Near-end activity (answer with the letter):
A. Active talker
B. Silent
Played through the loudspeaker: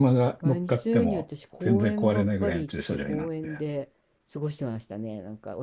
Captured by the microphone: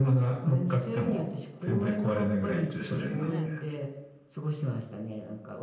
A